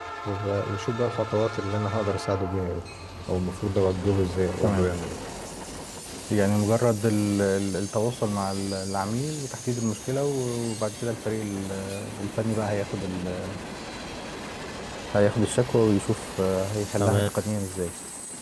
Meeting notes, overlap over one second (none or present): none